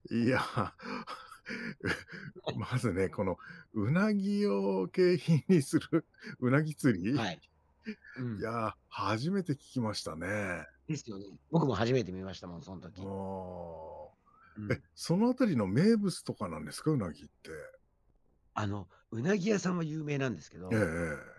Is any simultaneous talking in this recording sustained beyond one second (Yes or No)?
No